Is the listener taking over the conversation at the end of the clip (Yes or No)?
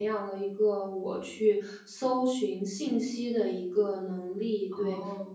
No